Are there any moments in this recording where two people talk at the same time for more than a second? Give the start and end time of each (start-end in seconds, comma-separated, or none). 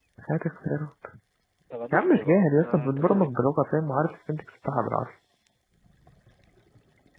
1.9-3.3